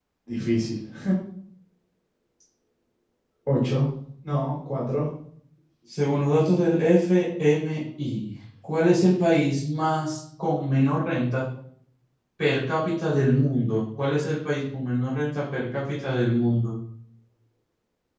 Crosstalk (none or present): none